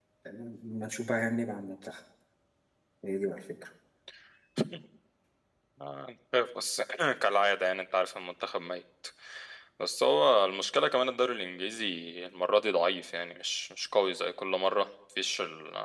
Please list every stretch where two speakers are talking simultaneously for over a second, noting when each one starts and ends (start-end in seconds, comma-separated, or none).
none